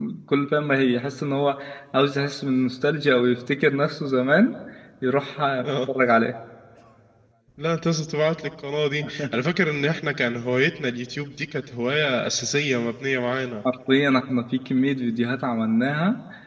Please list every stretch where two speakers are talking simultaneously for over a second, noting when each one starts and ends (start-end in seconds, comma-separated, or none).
none